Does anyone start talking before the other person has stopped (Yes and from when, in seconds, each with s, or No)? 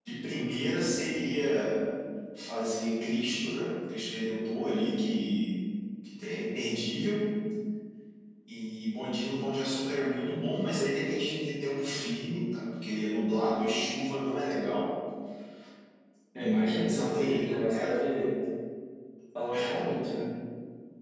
Yes, from 16.4 s